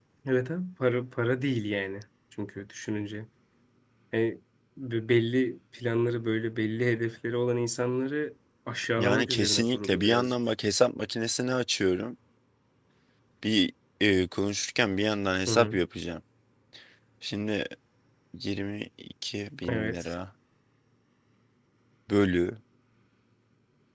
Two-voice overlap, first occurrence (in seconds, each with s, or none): 9.0 s